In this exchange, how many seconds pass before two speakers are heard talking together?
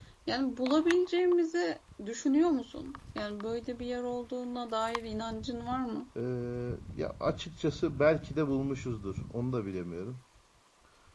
none

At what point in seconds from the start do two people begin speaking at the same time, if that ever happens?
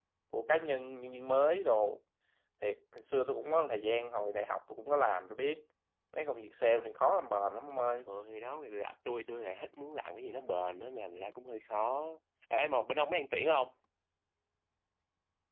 none

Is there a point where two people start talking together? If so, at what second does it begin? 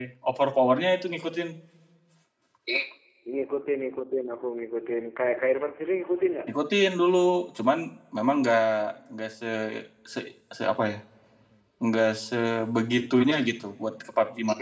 none

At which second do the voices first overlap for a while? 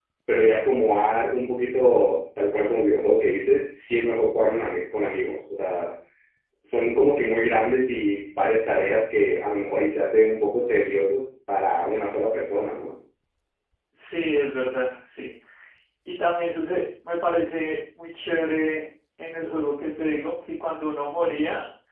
none

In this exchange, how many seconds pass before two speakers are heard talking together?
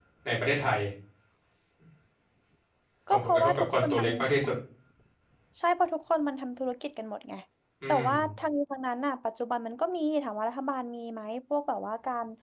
3.1 s

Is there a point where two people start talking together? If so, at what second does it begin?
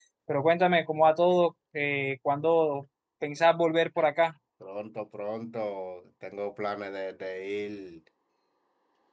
none

